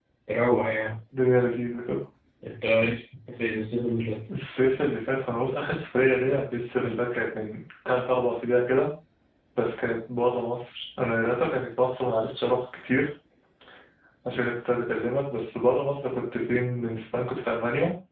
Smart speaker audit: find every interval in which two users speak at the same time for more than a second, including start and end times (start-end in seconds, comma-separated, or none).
none